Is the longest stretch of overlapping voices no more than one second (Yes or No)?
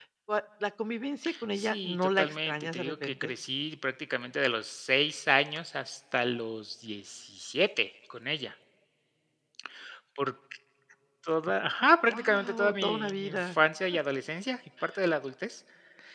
No